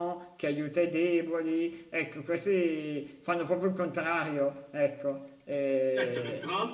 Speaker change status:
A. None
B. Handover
B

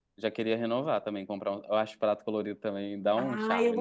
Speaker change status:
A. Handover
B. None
A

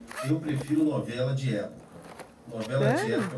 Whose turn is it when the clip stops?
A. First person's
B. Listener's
A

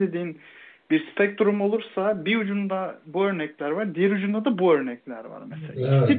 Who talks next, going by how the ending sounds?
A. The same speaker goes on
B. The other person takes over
A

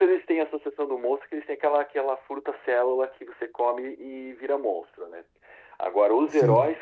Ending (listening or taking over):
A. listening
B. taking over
A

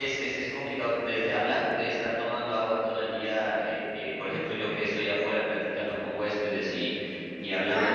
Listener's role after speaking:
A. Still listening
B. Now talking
A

